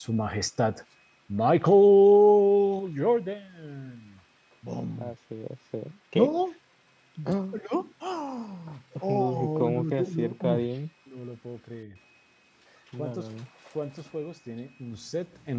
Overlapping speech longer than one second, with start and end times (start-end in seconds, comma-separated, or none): 9.1-10.7